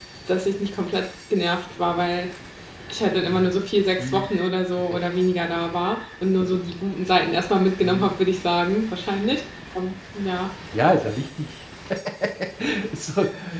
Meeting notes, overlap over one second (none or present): none